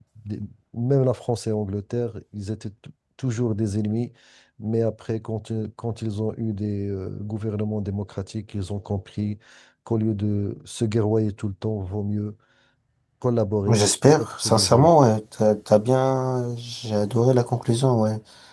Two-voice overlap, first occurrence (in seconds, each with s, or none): 13.7 s